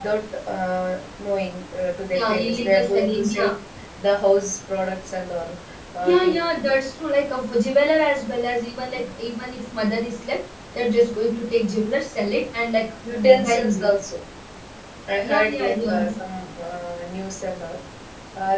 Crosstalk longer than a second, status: present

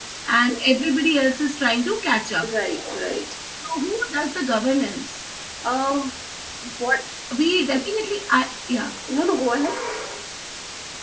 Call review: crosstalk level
none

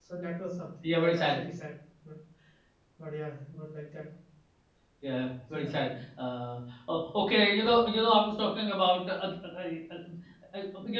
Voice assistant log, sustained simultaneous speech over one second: none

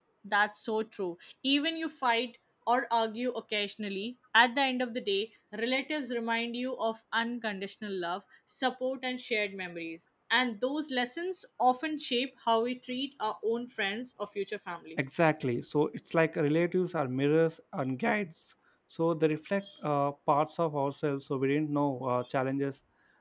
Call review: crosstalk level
none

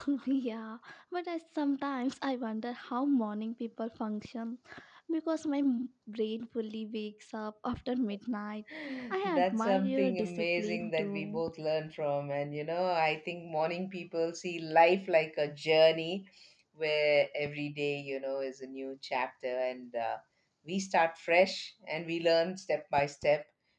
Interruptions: present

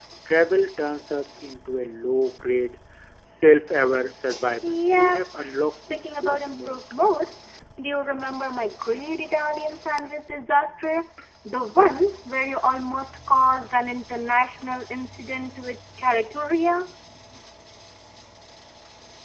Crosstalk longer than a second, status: present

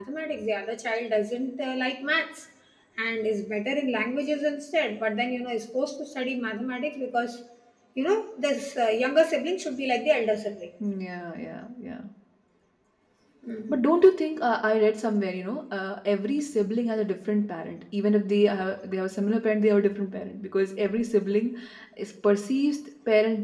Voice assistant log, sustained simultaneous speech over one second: none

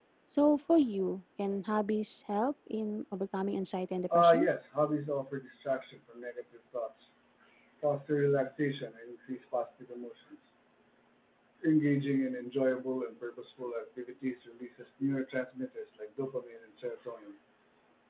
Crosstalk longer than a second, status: none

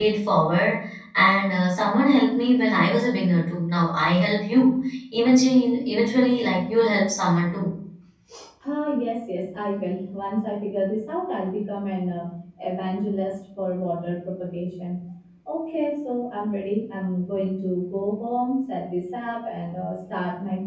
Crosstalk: none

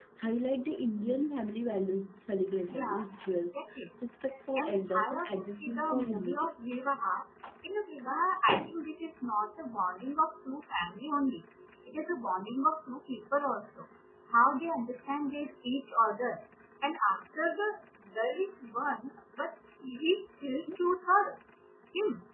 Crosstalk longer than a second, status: present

